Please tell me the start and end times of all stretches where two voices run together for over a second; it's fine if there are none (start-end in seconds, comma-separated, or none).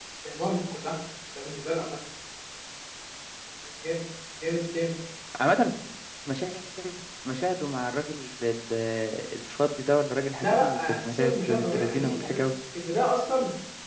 10.4-12.4